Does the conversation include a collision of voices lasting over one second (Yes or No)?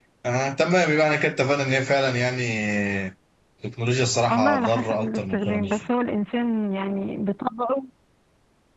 Yes